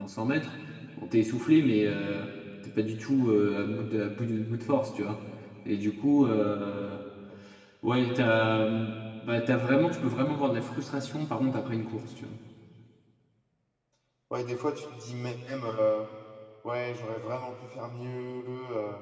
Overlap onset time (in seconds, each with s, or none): none